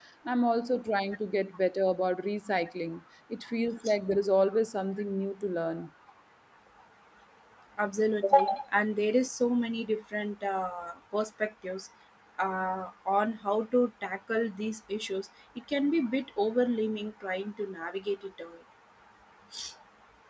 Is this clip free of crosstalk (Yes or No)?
Yes